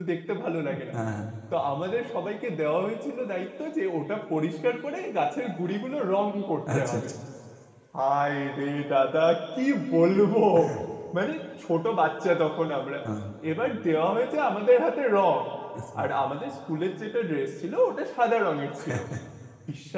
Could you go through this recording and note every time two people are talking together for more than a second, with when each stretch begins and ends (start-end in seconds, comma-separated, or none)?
none